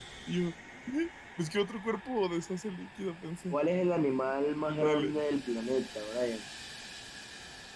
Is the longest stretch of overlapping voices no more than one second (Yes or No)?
Yes